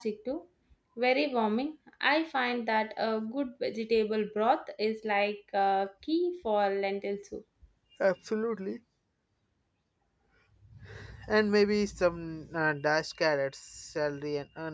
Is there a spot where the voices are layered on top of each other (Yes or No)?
No